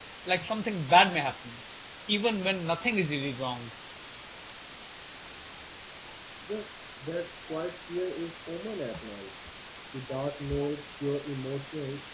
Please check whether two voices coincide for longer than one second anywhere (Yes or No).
No